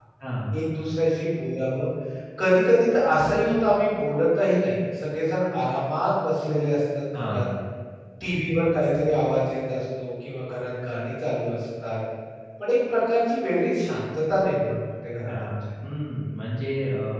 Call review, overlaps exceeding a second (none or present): none